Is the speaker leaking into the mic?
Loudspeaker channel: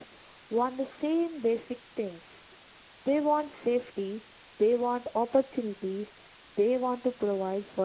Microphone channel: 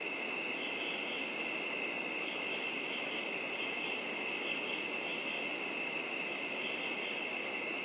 No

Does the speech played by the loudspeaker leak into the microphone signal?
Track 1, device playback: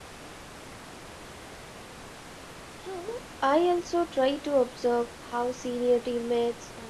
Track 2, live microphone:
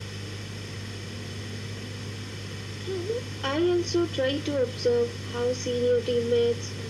Yes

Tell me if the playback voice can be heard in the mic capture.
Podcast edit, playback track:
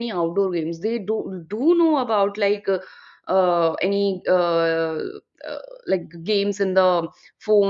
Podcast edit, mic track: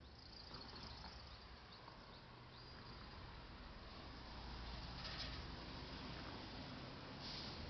No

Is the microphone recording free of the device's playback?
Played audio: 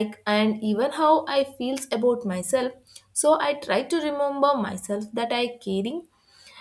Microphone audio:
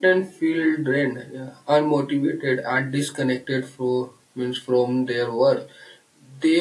Yes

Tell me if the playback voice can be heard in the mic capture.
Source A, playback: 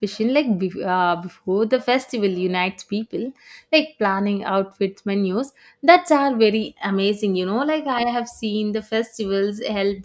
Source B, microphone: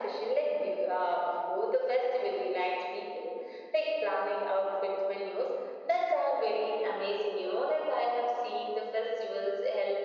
Yes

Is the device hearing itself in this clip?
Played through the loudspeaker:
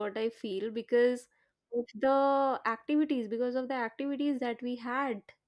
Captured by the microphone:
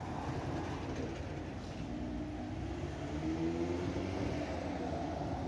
No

